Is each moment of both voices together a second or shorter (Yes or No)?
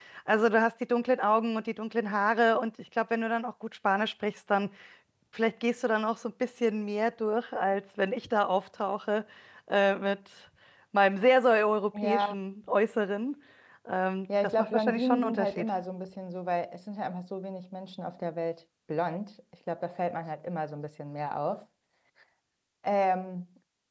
No